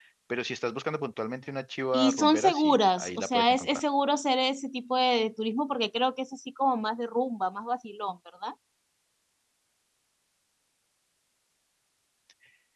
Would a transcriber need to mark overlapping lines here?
Yes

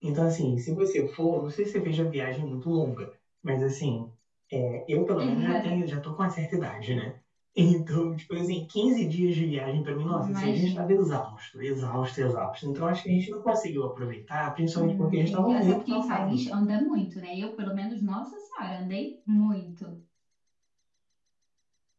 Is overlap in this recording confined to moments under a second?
No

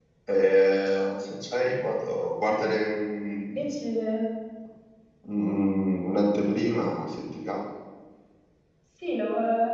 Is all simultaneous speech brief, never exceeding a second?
Yes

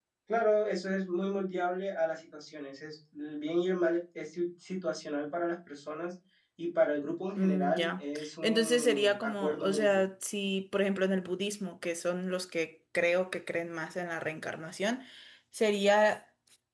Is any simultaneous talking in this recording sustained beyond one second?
Yes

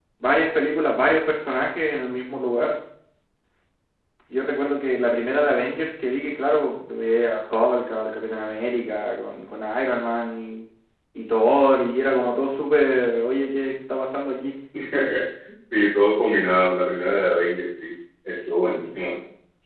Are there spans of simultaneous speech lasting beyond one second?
No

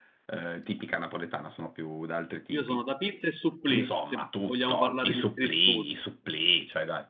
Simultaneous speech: Yes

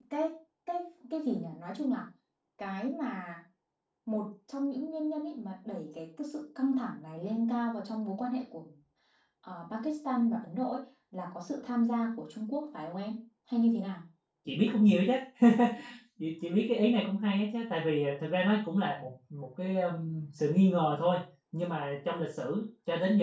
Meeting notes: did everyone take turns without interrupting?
Yes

